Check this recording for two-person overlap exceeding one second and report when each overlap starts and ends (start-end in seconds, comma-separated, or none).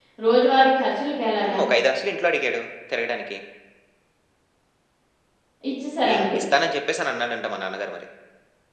none